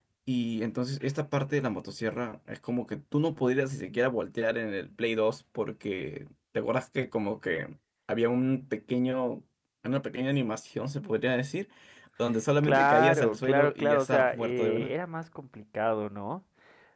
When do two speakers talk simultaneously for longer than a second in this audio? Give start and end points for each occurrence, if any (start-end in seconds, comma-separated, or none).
12.6-14.9